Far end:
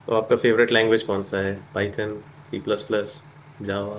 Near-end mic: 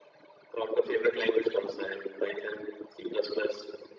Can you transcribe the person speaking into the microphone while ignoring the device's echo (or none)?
none